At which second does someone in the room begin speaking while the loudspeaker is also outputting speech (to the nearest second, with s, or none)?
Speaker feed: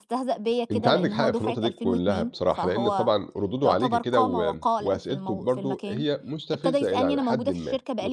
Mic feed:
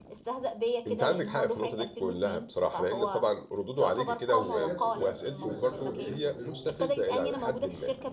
4 s